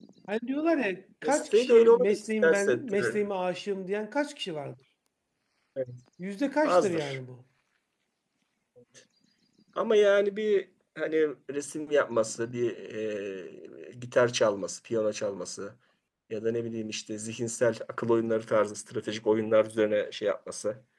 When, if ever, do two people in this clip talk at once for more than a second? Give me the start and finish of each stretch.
1.2-3.2

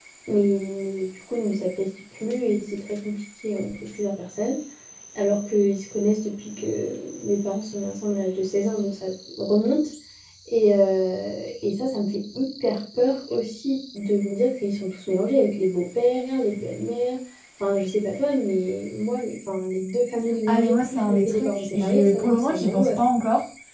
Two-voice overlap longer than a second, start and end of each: 20.5-23.0

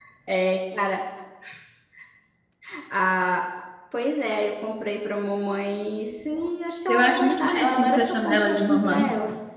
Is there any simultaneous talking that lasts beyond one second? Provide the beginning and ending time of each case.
6.9-9.0

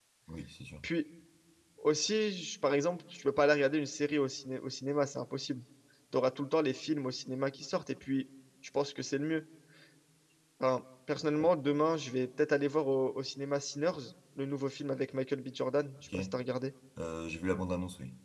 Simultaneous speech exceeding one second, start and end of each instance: none

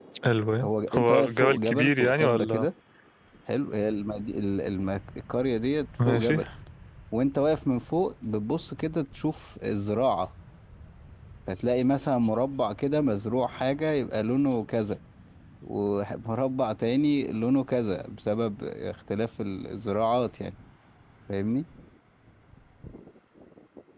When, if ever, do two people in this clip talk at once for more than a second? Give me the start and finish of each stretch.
0.6-2.6

